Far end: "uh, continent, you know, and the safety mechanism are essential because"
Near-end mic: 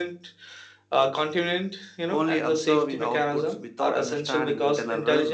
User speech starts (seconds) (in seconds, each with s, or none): 2.1 s